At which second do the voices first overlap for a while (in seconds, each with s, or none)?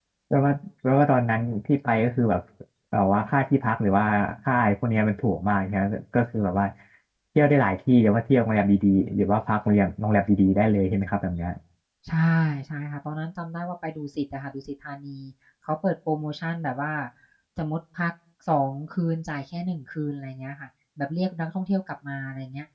none